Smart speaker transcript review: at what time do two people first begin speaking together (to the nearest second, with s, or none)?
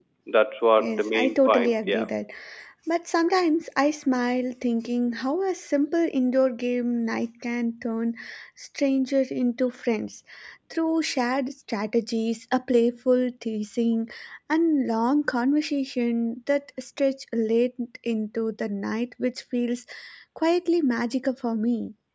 1 s